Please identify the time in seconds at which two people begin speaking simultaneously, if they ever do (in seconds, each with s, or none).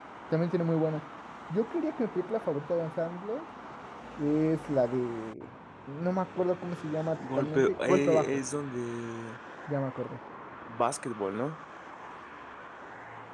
7.2 s